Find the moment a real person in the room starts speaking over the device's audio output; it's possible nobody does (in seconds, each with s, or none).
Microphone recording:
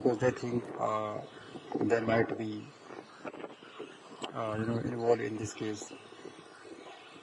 none